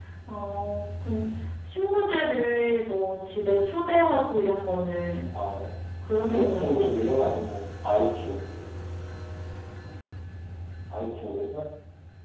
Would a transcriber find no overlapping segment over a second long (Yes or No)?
No